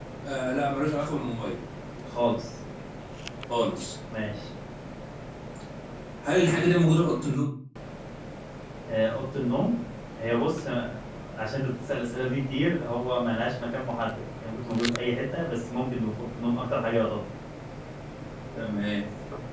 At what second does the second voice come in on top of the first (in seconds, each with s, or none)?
none